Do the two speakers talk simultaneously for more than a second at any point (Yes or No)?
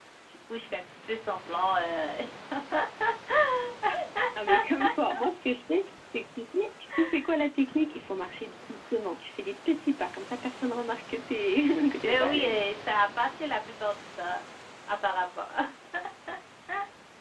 No